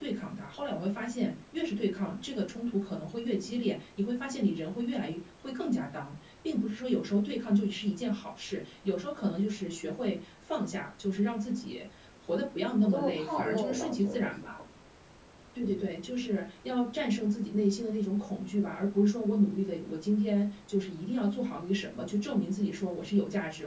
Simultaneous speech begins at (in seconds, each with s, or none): 12.8 s